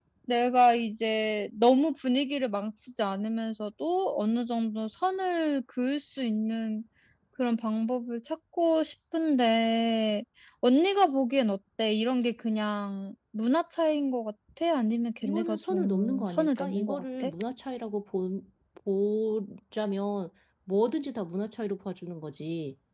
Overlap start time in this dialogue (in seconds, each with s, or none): 15.2 s